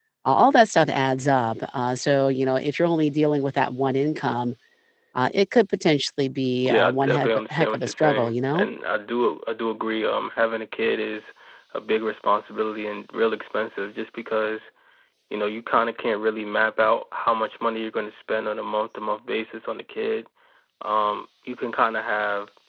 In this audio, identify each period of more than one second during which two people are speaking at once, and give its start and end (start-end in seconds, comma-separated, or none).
6.7-8.7